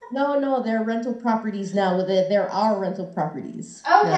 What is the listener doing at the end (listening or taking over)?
taking over